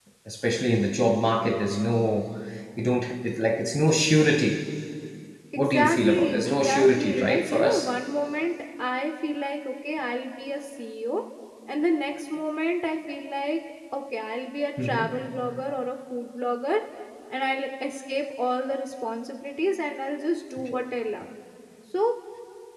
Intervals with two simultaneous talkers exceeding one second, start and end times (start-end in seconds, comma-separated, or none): 5.6-7.9